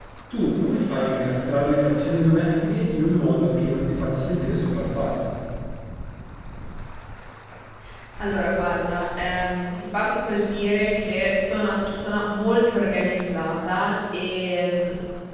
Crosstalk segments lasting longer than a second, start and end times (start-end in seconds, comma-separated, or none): none